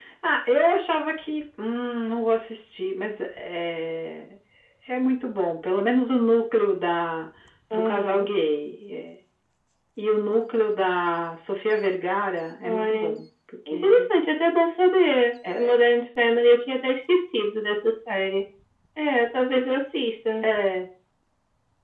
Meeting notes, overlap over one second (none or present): none